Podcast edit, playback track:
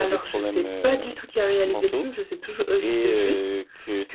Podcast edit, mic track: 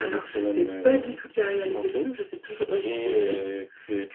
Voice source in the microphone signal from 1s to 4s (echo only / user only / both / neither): echo only